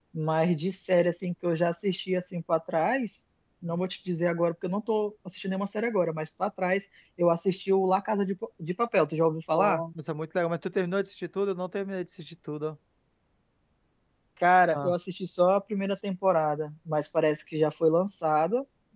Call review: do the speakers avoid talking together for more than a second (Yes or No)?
Yes